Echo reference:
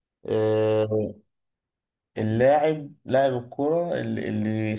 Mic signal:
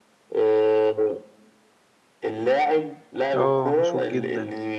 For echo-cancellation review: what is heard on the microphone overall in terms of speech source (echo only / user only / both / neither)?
both